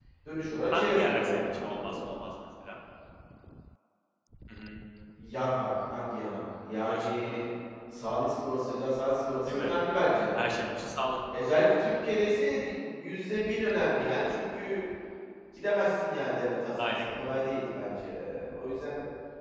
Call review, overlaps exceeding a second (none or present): present